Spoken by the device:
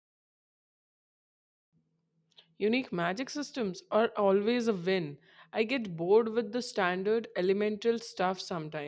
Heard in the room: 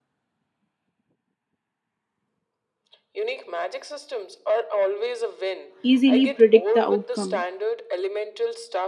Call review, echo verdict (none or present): present